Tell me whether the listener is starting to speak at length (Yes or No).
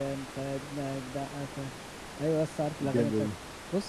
No